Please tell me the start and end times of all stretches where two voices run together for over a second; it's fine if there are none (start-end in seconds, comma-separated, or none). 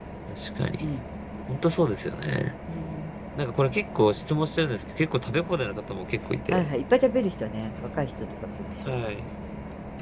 none